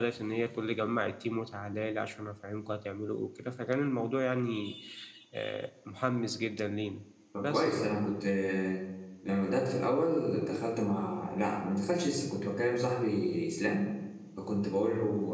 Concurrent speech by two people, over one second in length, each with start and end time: none

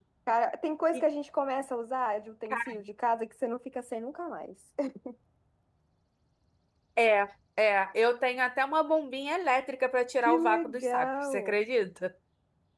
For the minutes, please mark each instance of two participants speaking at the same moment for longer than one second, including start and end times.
10.2-11.6

